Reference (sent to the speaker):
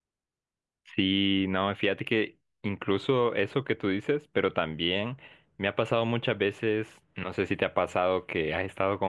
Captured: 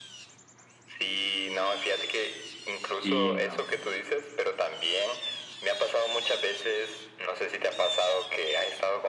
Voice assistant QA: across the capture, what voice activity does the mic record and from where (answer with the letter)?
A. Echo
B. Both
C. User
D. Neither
B